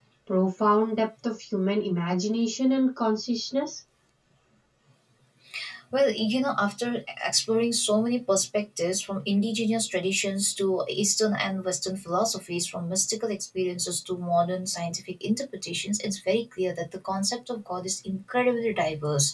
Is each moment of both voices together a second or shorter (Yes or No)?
Yes